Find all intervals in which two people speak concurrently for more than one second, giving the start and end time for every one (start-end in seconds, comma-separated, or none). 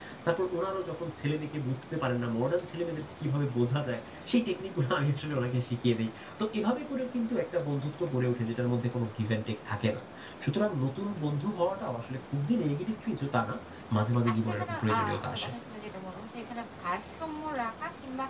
14.2-15.5